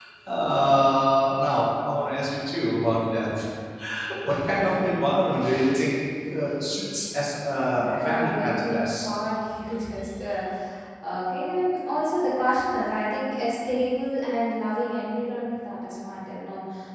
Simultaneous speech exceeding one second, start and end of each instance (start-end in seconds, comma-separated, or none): 7.8-9.1